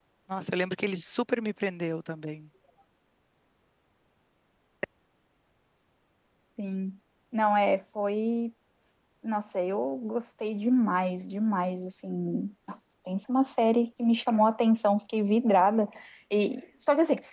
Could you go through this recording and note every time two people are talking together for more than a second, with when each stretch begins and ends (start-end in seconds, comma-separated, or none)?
none